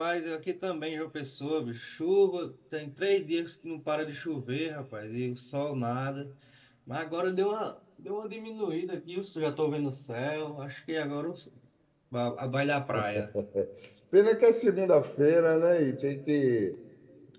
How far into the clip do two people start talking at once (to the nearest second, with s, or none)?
none